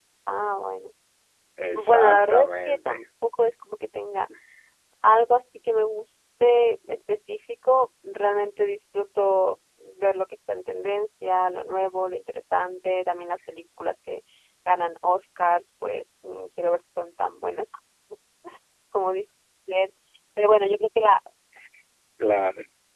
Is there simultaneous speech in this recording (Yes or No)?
Yes